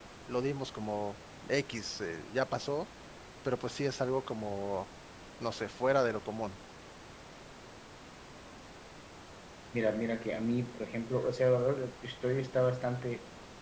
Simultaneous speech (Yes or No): No